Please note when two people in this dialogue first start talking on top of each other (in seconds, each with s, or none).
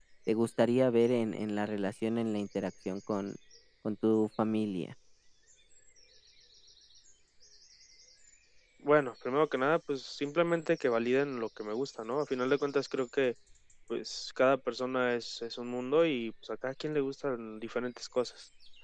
none